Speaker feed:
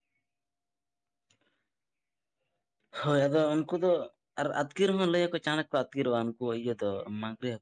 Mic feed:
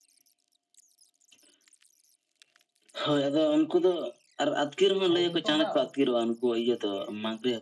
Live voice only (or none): ᱦᱮᱸ ᱠᱤᱱᱛᱩ ᱚᱱᱟ